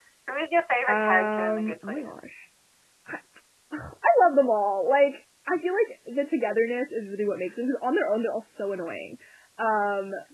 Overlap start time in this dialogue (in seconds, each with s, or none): 0.9 s